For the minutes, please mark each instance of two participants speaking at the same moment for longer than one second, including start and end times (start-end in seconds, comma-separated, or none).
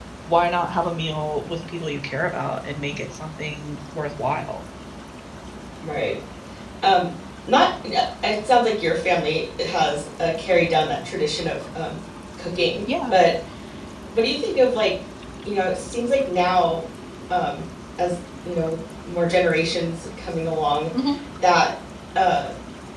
none